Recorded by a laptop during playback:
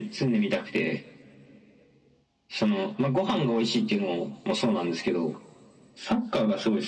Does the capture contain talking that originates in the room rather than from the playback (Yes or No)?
No